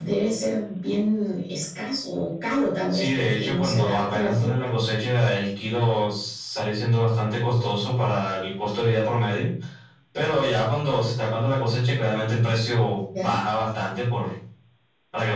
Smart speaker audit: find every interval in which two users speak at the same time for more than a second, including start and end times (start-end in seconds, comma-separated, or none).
2.9-4.6